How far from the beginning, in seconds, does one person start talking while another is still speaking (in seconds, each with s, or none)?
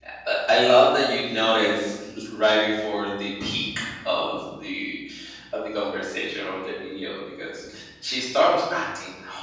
none